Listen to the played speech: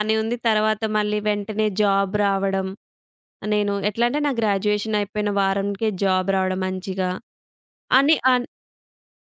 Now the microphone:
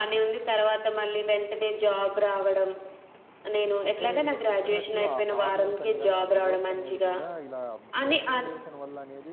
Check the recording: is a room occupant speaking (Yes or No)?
Yes